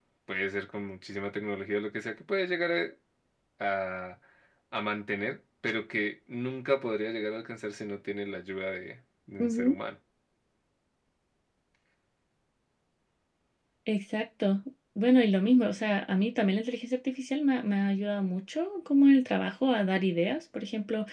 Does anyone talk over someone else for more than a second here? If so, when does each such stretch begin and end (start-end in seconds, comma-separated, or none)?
none